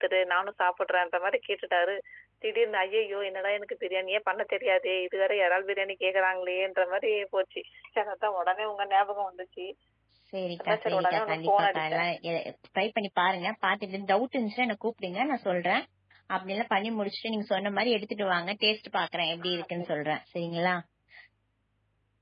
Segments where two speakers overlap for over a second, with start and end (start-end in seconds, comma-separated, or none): 10.6-12.0